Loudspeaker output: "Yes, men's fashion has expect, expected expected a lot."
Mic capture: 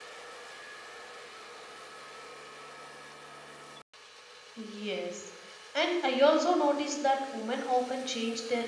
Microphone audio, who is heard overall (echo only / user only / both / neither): user only